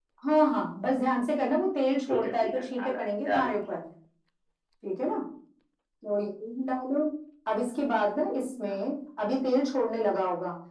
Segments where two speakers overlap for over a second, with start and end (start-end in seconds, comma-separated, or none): 2.1-3.5